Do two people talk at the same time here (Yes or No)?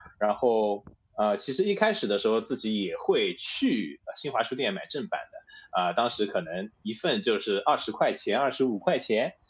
No